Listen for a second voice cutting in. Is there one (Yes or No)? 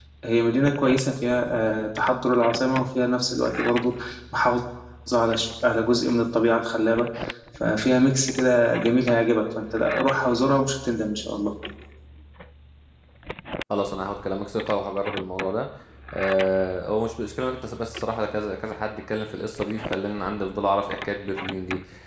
No